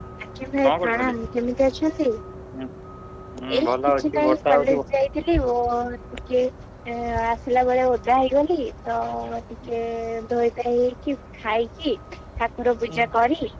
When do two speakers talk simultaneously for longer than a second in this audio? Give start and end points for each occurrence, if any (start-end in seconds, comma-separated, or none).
3.6-4.8